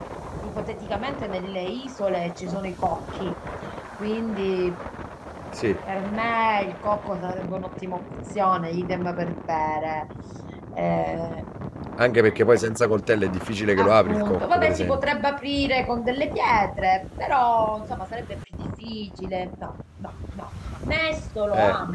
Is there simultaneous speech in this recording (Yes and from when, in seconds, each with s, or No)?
Yes, from 13.8 s